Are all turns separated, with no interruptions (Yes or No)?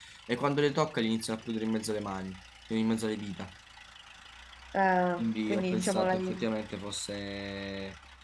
No